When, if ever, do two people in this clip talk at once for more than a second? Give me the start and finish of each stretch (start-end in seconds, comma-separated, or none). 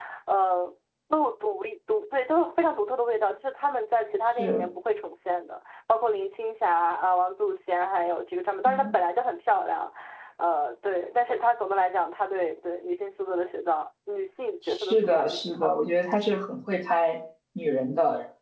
14.7-15.9